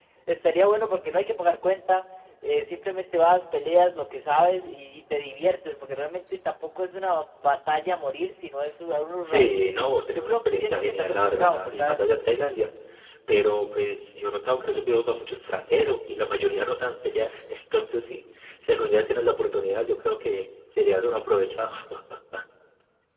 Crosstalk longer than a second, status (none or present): present